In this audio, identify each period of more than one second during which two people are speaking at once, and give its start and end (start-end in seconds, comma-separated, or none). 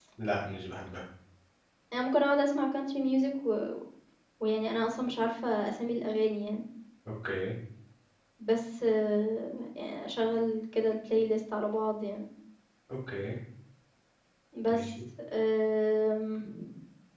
none